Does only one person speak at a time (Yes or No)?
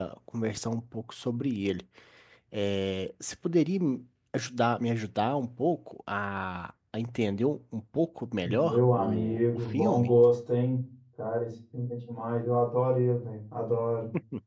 No